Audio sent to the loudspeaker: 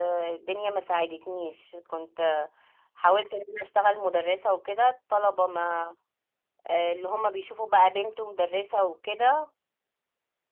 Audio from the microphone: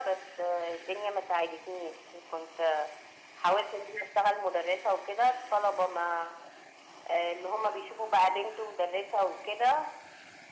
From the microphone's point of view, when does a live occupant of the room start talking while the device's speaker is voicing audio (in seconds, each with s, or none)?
none